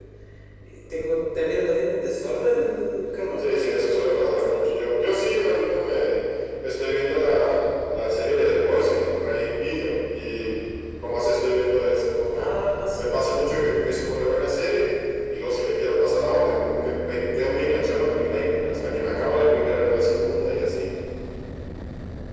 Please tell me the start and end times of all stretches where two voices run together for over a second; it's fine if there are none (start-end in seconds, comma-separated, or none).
3.4-4.7